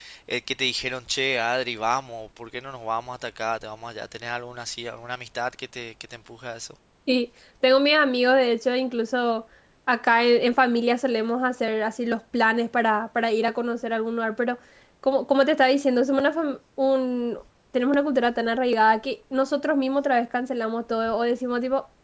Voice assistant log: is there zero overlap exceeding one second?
Yes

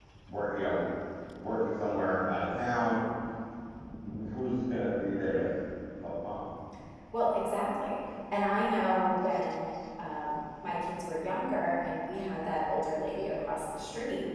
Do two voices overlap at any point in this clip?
No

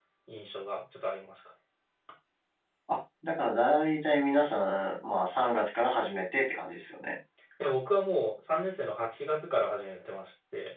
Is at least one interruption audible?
No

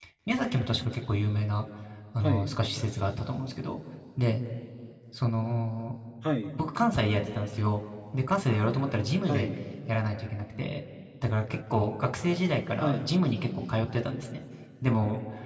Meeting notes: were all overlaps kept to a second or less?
Yes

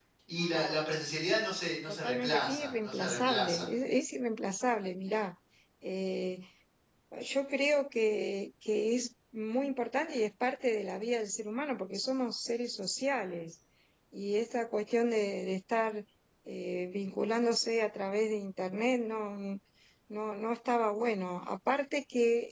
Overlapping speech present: Yes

